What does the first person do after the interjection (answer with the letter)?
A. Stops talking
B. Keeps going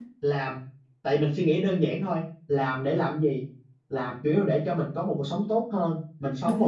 B